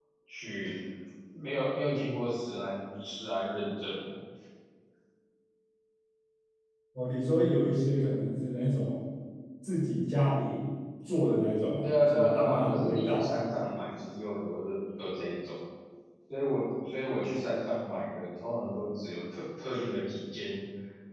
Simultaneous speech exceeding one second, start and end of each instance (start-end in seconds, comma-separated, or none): 11.8-13.3